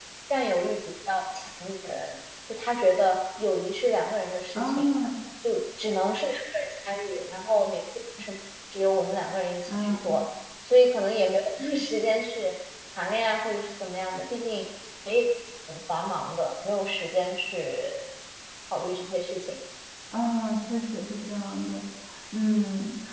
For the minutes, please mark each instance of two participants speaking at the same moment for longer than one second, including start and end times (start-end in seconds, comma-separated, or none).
none